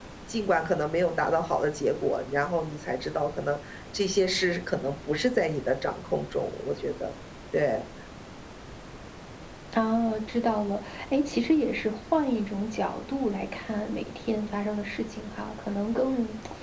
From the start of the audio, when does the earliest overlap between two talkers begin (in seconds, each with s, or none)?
none